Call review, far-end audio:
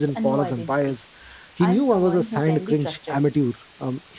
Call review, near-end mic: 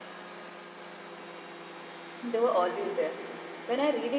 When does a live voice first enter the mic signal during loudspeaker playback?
2 s

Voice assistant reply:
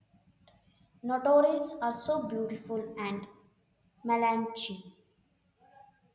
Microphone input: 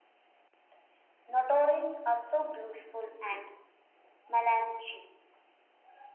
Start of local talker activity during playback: none

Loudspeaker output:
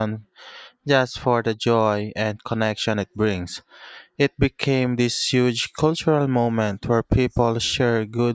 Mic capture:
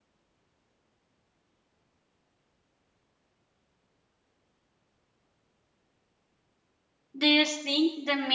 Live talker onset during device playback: 7 s

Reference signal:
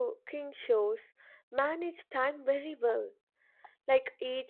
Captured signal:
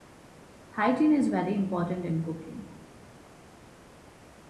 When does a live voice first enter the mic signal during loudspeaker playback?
1 s

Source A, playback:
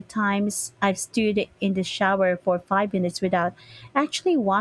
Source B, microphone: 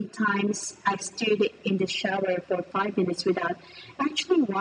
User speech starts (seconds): none

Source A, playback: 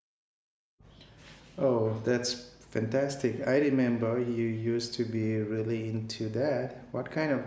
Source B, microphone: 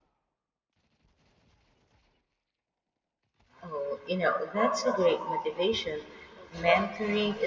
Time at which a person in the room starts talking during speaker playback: 4 s

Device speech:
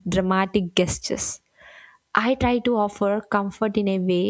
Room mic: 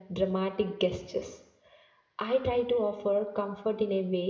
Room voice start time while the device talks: none

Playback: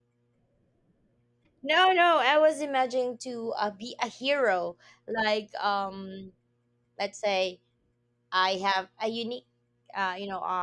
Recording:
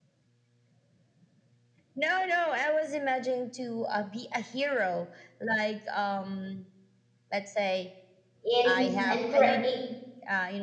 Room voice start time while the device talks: 8 s

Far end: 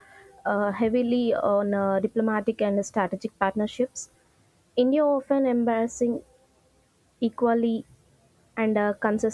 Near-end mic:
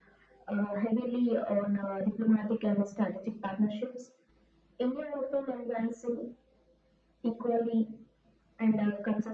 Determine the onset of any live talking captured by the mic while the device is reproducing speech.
none

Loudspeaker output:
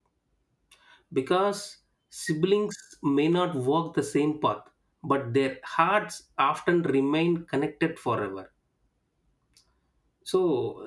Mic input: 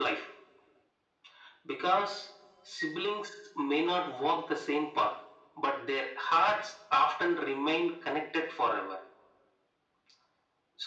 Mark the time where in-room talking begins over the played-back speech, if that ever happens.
none

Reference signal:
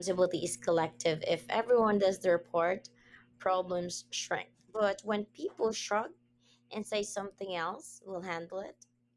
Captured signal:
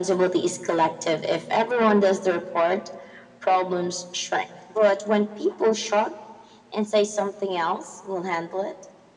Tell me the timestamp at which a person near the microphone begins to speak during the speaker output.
none

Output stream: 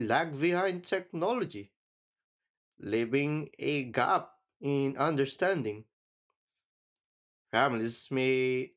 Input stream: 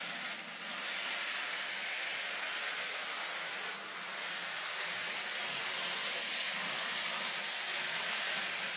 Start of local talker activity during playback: none

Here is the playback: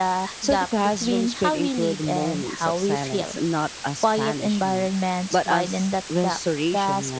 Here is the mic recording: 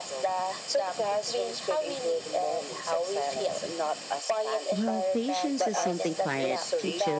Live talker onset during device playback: 5 s

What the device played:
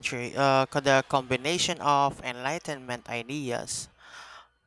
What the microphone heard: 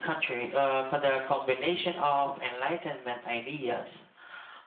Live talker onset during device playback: none

